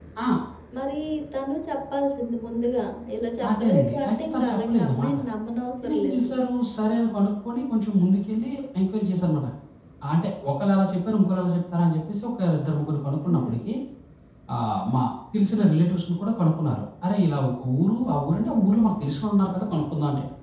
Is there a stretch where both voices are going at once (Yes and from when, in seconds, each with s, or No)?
Yes, from 3.5 s